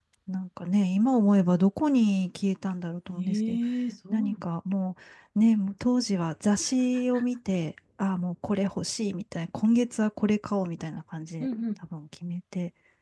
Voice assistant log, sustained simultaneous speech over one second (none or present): none